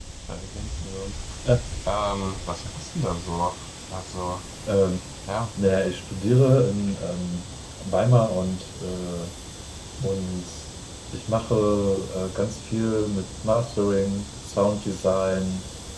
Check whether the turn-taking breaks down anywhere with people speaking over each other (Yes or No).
No